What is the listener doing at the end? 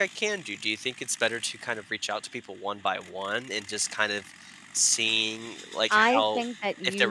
taking over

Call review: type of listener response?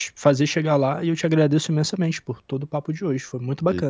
taking over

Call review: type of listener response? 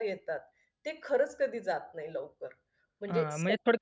taking over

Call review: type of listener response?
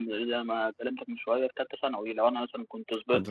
listening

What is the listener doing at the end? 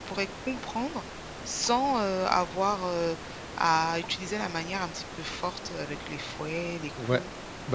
taking over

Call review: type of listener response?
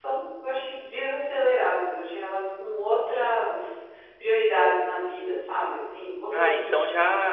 taking over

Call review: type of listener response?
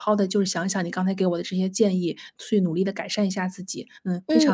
taking over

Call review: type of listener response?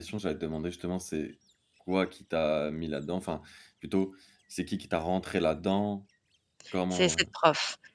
taking over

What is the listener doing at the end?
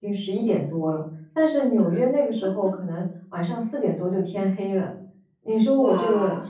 listening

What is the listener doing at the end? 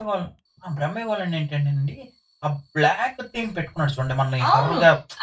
taking over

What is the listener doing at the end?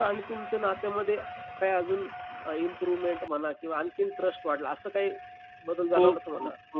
taking over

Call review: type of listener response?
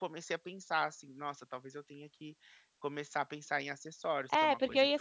taking over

